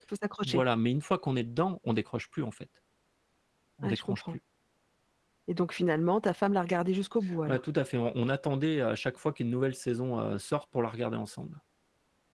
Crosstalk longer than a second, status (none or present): none